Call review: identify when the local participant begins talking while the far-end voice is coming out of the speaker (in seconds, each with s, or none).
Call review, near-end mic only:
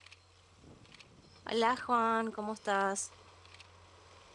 1.4 s